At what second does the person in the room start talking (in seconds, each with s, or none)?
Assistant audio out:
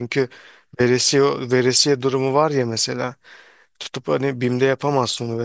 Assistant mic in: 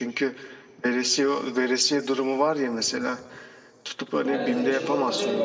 4.2 s